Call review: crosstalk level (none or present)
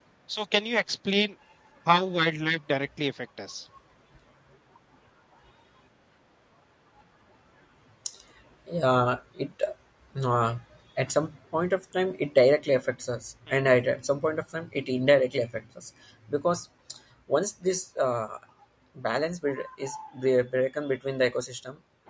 none